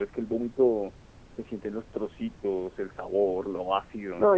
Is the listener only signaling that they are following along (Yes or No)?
No